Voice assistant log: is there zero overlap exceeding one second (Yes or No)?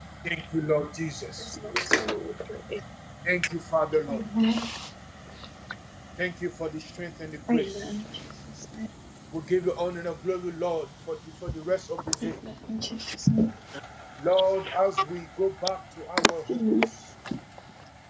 Yes